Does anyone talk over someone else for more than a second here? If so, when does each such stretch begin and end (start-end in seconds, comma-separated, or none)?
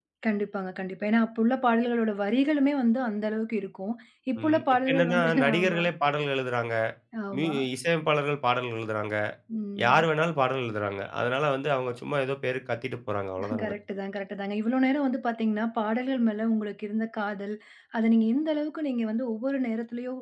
4.4-5.8